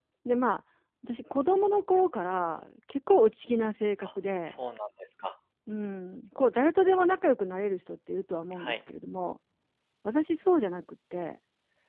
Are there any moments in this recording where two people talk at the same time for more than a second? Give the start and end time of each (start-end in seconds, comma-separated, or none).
none